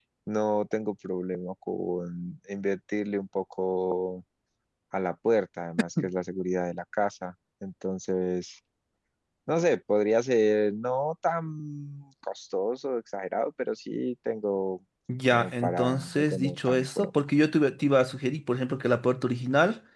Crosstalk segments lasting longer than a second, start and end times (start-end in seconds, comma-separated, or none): 15.3-17.1